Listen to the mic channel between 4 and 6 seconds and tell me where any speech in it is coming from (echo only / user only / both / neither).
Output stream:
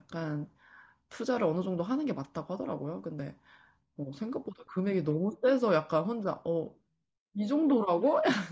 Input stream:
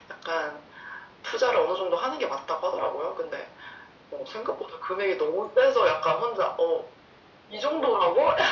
echo only